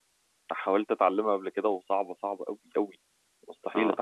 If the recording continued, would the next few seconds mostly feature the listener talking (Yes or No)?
Yes